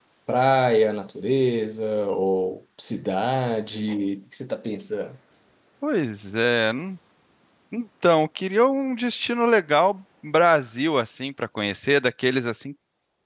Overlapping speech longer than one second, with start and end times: none

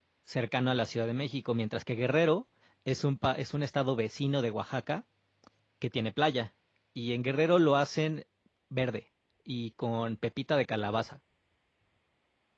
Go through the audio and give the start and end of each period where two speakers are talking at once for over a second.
none

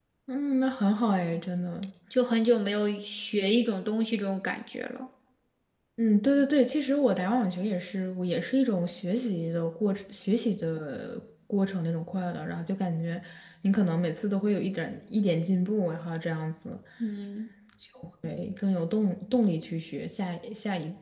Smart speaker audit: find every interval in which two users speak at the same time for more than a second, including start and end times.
none

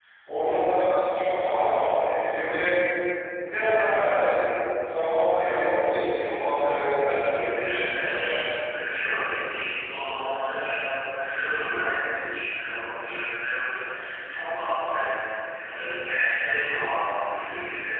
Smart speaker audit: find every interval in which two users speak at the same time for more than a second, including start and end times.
6.9-8.4

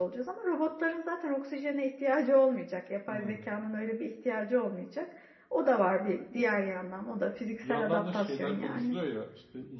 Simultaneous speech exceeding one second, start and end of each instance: 7.6-8.9

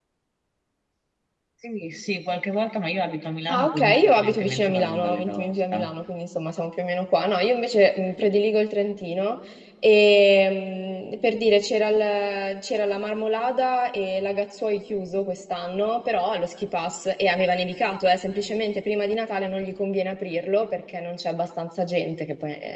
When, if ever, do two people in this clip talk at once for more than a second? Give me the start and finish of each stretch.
3.5-5.9

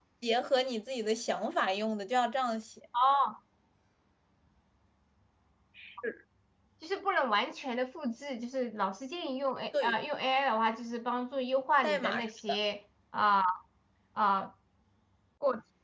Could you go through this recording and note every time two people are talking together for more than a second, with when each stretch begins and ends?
none

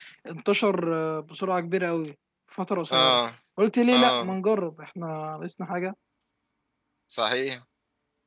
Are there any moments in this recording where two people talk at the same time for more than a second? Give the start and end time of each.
none

